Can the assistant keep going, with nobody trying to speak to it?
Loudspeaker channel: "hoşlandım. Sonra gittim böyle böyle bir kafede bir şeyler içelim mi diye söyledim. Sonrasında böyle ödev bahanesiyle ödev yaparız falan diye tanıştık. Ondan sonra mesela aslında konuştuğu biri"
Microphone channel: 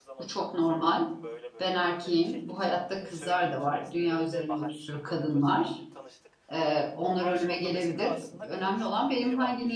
No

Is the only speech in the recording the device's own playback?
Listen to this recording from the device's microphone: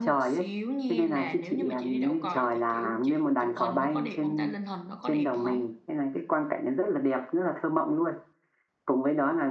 No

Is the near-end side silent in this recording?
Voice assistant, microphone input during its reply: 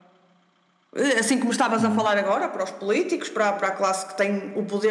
No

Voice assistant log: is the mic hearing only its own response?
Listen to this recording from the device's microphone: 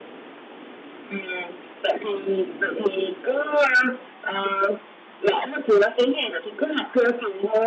Yes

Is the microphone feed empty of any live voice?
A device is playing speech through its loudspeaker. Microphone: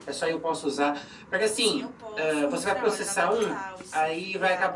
No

